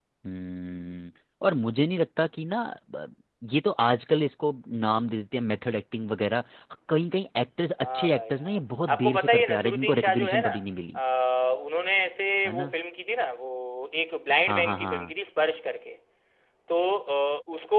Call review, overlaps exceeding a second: present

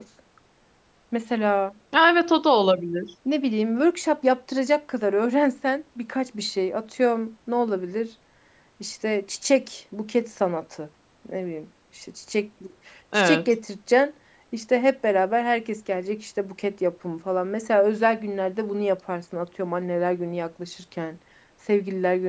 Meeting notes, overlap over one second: none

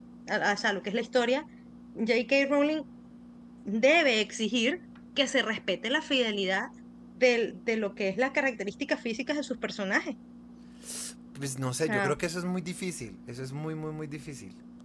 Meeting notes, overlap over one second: none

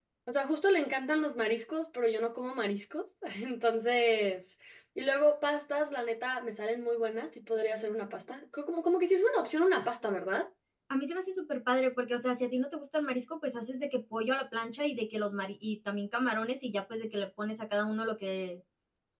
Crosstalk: none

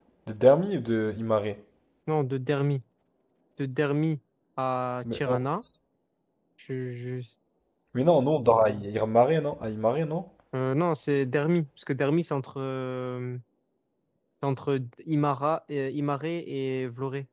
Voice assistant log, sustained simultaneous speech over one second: none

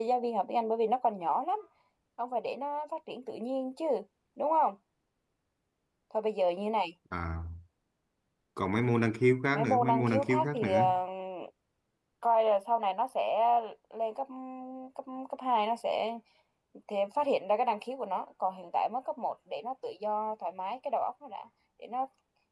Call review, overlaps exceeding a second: present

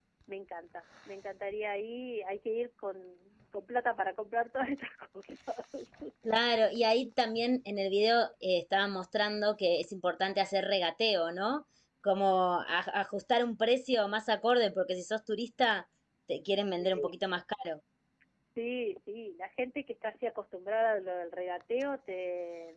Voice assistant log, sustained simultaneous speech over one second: none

